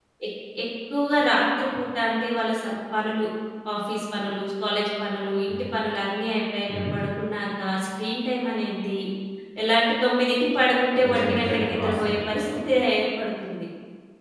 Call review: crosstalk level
present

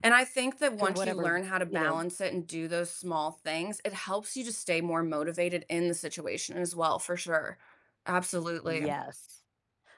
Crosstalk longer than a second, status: none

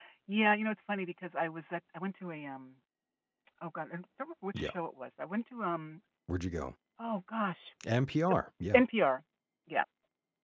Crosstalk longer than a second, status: none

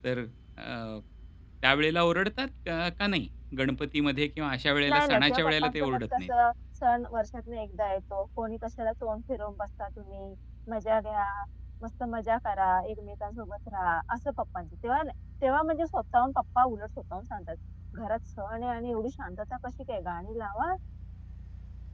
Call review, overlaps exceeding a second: present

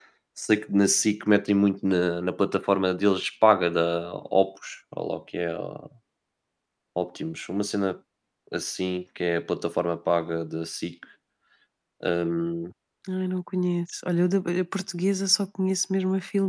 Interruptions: none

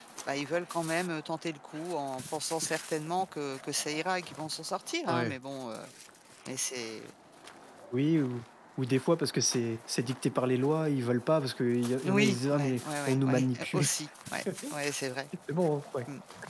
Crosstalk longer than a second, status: present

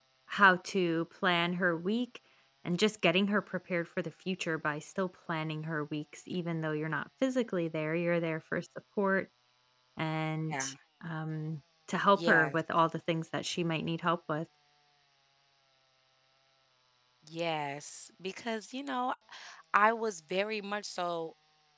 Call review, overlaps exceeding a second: none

